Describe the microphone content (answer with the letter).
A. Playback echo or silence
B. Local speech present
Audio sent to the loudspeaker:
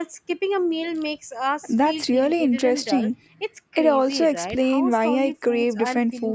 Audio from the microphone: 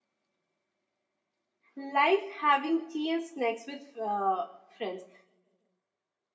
B